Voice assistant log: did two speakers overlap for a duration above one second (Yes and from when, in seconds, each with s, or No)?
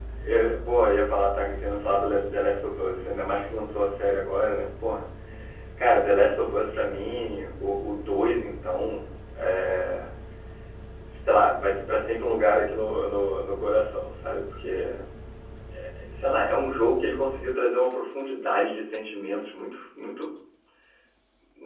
No